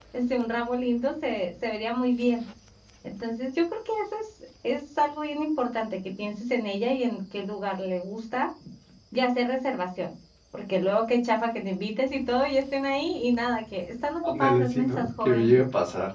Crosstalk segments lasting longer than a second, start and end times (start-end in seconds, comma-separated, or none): 14.2-15.5